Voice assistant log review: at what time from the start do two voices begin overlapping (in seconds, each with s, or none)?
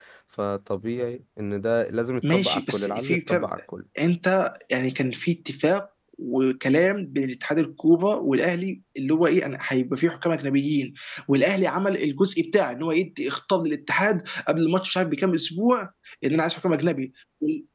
2.2 s